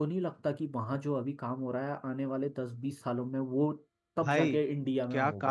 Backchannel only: No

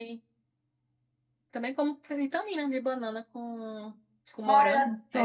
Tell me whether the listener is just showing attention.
No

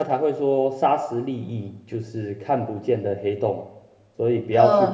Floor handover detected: Yes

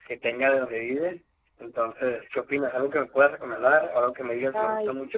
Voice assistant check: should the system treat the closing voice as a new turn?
Yes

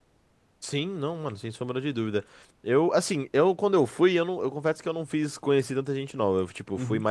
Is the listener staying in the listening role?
Yes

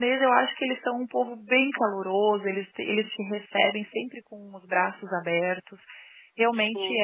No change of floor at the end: Yes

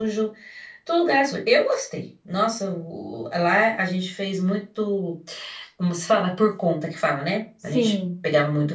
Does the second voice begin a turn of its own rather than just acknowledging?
No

